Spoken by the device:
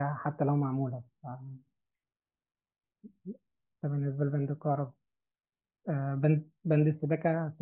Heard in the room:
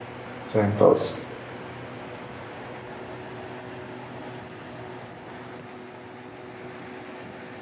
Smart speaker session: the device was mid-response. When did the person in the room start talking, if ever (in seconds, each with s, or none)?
0.5 s